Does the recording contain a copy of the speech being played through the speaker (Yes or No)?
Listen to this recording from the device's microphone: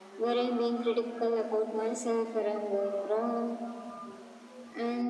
Yes